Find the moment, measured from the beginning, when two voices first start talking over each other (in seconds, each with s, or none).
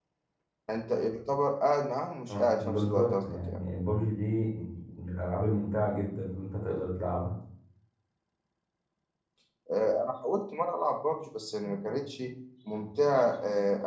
2.3 s